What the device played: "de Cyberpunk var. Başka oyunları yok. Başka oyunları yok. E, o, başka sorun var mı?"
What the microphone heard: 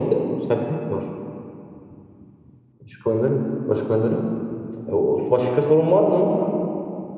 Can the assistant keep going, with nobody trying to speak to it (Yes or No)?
Yes